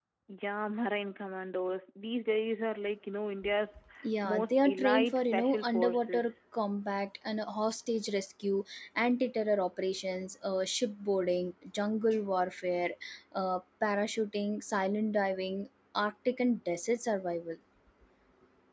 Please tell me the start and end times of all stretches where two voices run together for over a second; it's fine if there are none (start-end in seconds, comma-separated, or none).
4.2-6.2